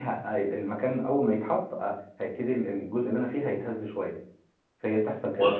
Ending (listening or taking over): listening